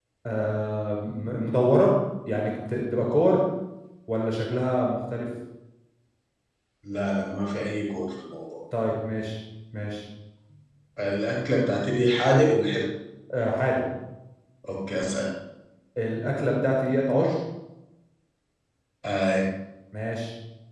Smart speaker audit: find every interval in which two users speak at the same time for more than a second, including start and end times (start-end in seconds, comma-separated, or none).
none